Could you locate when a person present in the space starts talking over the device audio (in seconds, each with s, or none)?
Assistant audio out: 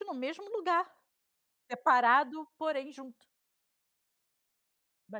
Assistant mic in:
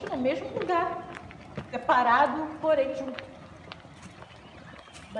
none